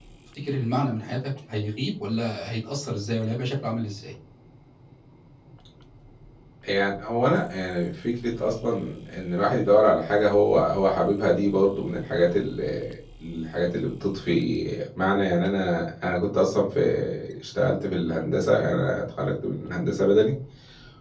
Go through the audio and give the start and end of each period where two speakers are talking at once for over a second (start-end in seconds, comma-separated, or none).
none